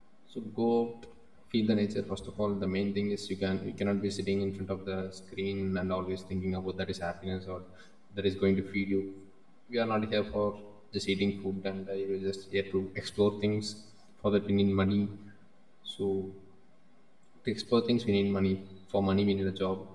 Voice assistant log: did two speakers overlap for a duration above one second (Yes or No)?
No